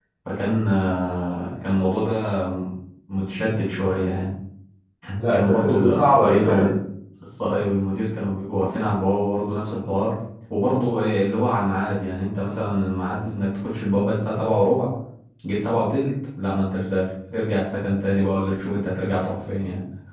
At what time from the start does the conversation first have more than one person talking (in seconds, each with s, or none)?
5.3 s